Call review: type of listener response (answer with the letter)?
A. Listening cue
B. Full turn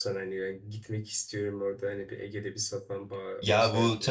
B